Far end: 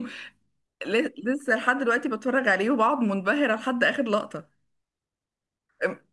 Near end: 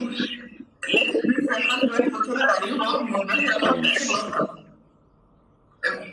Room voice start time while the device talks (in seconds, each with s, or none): 3.6 s